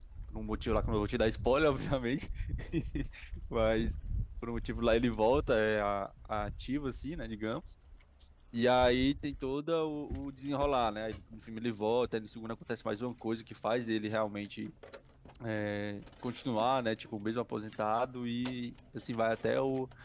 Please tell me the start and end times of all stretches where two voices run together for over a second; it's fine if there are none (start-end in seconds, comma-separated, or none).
none